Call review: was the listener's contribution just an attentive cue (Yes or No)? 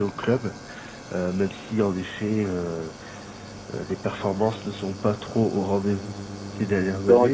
No